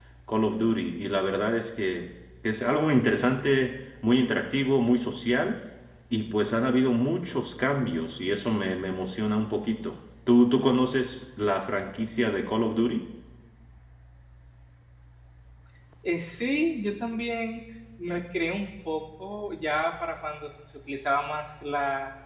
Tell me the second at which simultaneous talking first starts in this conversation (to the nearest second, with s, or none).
none